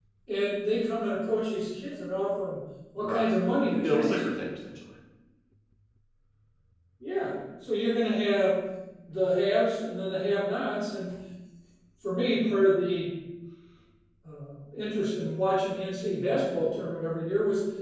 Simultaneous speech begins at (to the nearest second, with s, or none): 3 s